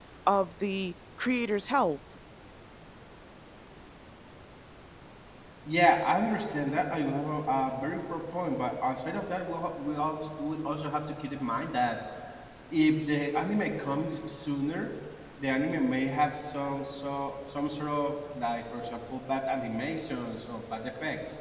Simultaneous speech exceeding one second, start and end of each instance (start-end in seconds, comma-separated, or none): none